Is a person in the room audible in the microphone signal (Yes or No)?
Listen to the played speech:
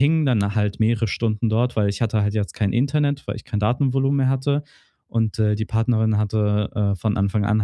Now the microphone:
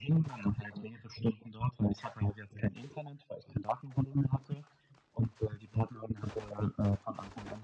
No